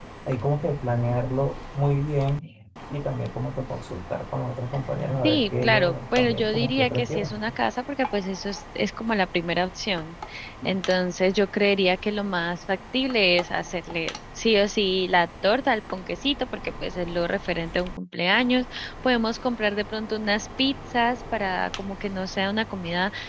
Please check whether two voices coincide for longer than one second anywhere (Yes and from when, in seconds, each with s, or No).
Yes, from 5.2 s